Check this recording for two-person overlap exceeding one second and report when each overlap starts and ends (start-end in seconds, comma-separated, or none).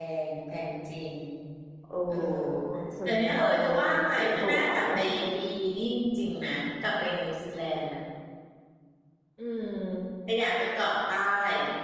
3.1-5.0